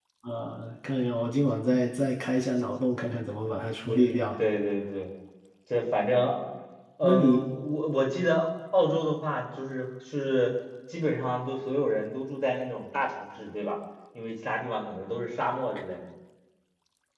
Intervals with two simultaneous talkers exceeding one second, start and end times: none

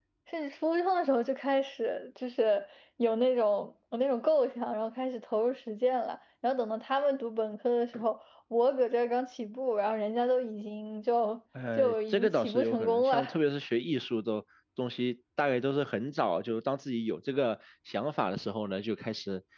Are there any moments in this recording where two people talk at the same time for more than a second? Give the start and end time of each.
11.8-13.2

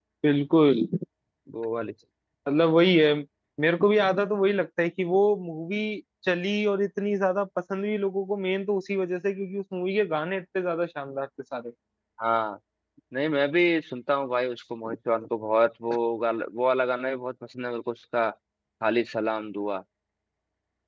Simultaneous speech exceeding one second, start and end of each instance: none

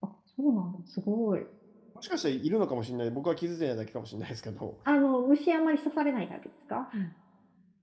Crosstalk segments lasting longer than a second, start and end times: none

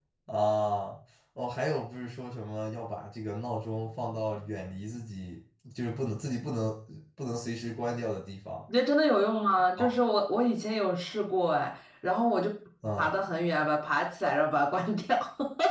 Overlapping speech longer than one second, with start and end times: none

